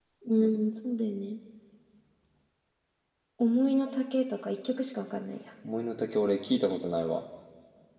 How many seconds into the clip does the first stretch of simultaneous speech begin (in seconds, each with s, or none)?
none